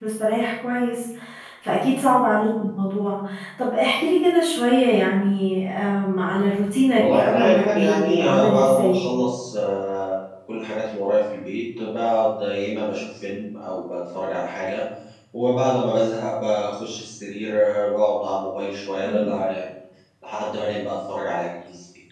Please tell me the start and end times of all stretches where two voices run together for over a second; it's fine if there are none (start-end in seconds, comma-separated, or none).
7.0-9.0